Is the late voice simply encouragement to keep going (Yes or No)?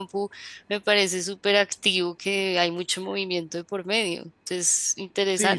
No